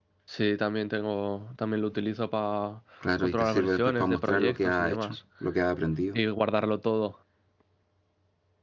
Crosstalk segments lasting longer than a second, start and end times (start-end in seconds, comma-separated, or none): 3.2-5.2